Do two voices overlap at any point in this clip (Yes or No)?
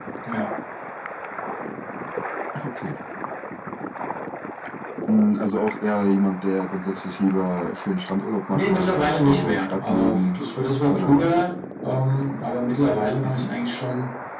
Yes